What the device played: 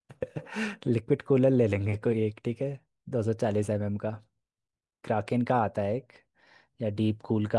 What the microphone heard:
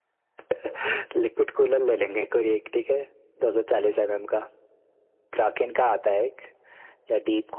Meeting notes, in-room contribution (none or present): none